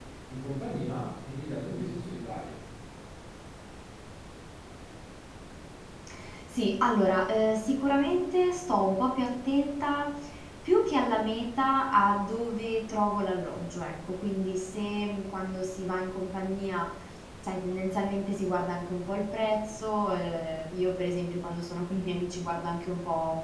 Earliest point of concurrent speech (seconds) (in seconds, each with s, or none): none